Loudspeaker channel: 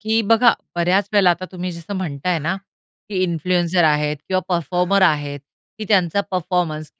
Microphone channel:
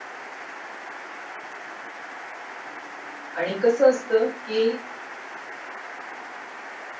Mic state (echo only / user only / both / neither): user only